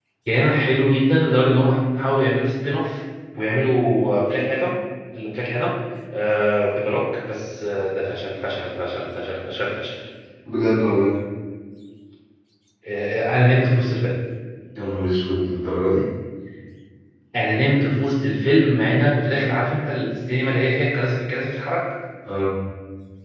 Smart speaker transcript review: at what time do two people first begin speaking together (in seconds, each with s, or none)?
none